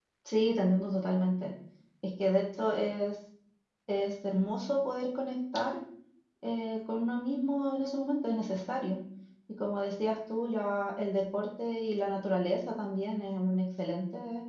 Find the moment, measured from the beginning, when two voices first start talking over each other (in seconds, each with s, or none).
none